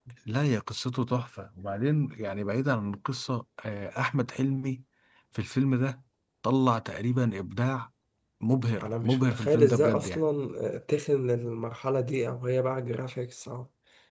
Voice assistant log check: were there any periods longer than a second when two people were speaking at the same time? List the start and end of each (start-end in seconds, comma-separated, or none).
8.8-10.2